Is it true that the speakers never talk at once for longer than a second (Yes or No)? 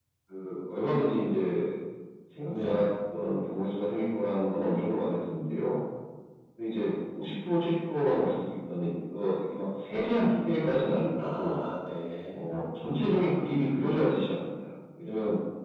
Yes